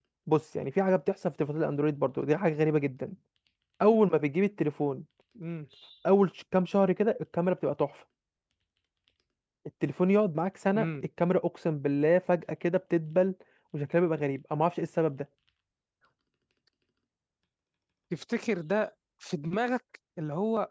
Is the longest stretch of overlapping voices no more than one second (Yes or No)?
Yes